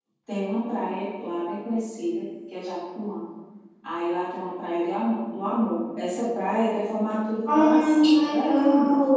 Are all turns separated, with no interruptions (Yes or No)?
No